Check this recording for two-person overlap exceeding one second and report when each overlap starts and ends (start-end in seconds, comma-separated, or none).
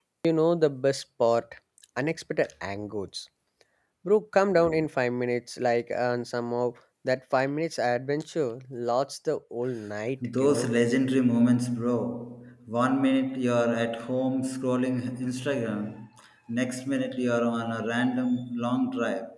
none